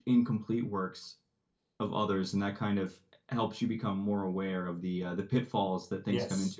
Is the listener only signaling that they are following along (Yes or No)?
No